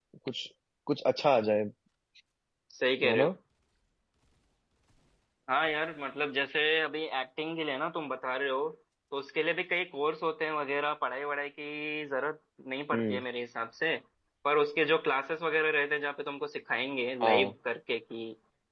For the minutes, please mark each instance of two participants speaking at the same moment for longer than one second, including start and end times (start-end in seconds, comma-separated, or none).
none